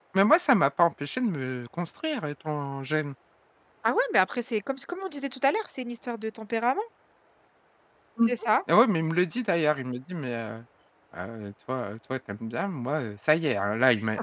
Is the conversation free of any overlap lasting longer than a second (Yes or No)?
Yes